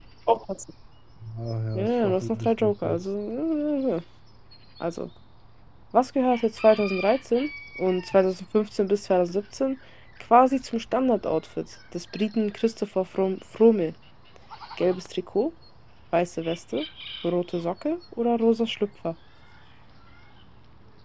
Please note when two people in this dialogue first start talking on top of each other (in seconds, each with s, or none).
1.8 s